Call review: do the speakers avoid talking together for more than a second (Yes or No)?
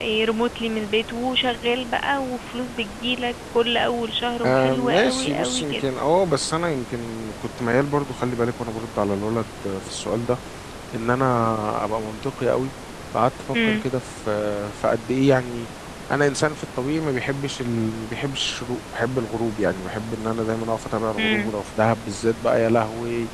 No